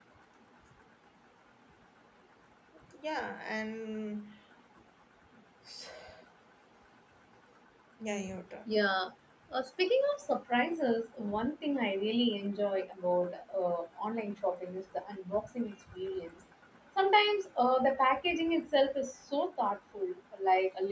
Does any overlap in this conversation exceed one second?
No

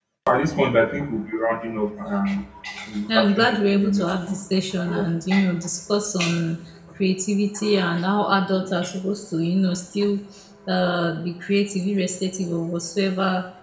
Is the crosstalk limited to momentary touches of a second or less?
No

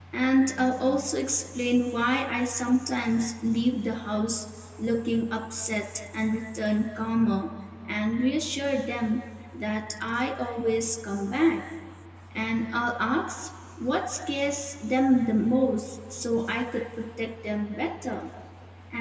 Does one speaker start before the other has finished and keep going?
No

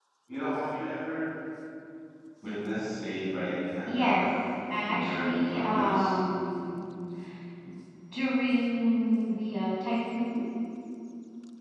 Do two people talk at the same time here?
Yes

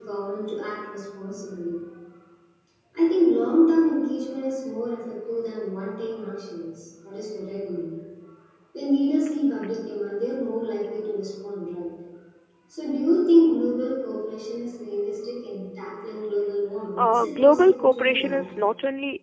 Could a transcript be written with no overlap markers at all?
No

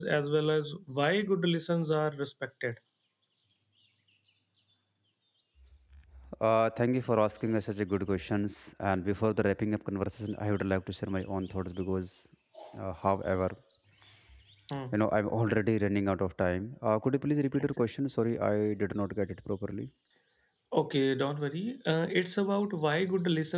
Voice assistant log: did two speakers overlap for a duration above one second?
No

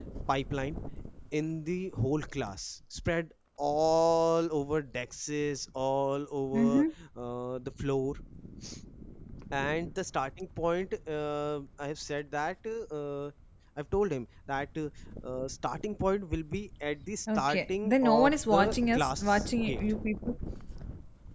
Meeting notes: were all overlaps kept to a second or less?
No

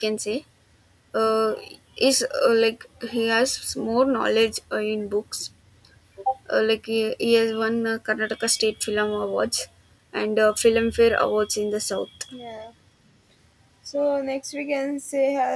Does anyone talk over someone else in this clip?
No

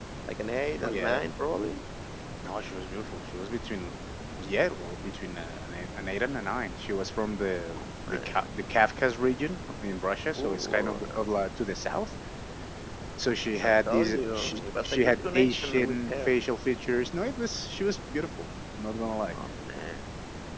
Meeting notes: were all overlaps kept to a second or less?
No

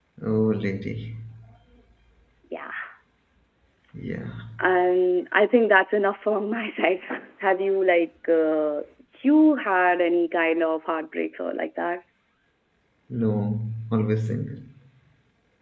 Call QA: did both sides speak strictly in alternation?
Yes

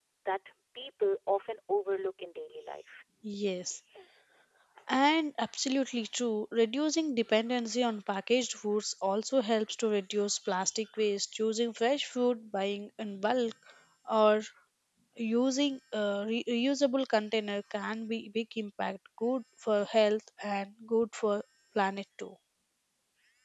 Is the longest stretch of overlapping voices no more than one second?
Yes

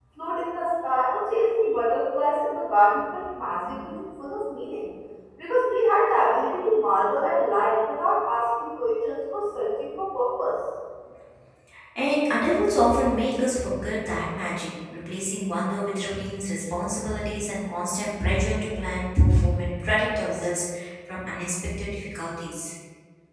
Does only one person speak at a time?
Yes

